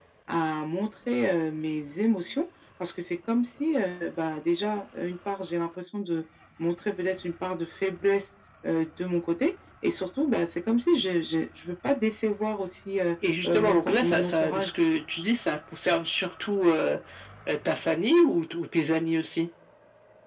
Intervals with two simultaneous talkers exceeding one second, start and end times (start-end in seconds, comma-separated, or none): 13.4-14.7